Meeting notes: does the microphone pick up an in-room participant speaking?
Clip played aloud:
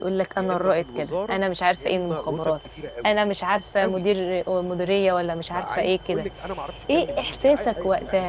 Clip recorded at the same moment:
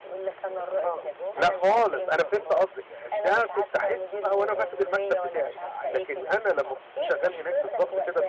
Yes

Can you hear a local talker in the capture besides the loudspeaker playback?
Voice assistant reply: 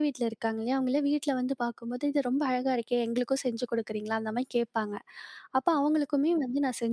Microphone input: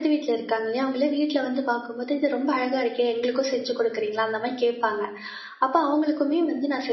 No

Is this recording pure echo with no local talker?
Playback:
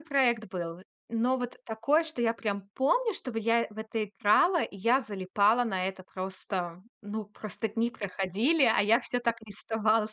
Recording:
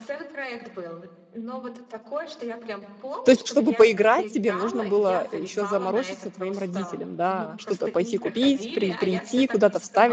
No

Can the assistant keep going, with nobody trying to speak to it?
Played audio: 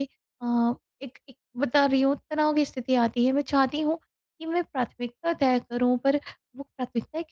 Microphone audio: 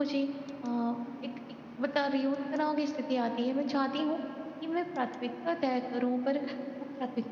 Yes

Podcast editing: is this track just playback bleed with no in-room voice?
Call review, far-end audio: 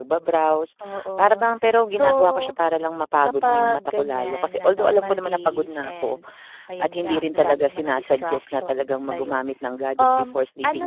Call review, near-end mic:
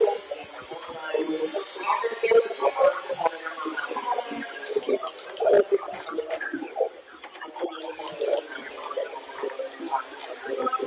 Yes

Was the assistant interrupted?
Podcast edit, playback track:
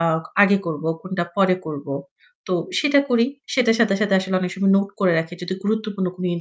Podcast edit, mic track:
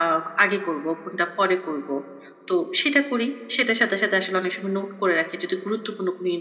No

